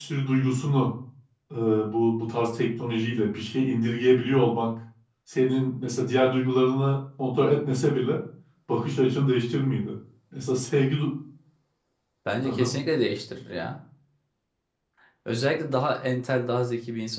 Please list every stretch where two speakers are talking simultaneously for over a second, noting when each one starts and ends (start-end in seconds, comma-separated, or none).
none